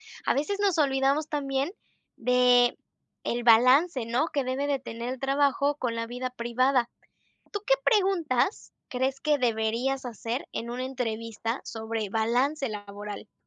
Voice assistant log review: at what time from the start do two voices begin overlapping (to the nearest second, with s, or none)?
none